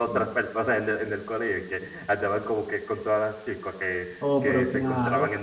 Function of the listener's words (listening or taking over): taking over